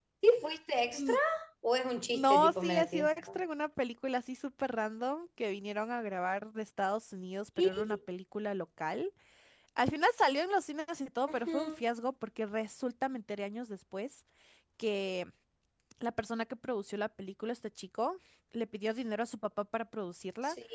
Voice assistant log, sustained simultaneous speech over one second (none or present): present